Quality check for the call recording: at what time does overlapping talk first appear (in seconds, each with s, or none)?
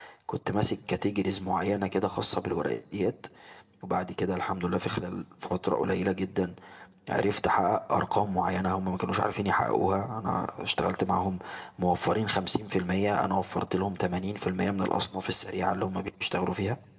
none